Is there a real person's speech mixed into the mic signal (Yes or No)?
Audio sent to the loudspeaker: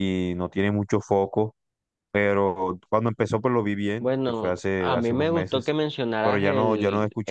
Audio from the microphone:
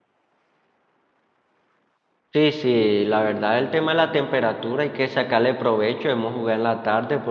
Yes